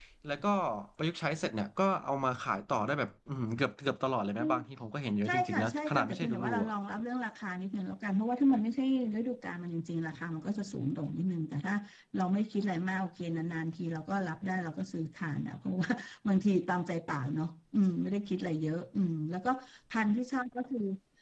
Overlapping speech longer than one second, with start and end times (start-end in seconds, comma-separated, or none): 5.2-6.7